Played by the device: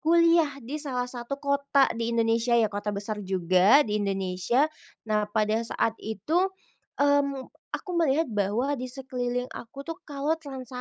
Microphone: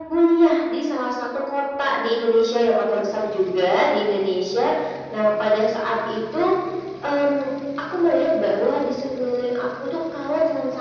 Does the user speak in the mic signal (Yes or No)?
No